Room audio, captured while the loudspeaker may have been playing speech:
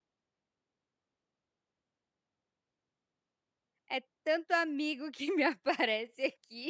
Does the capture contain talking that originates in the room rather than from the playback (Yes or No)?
Yes